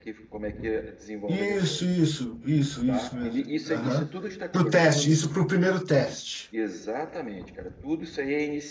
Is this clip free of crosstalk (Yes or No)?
No